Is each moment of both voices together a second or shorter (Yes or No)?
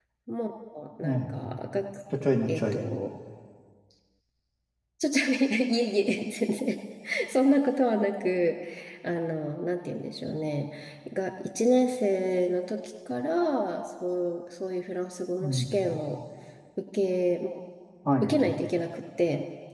Yes